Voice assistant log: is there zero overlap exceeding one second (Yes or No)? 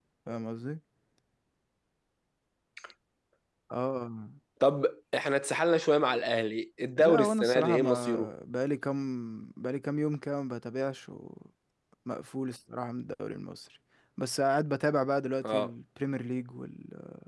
No